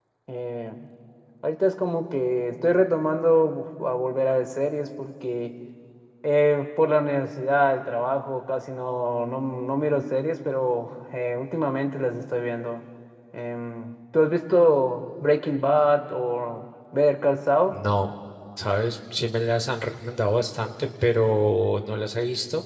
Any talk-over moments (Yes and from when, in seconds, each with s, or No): No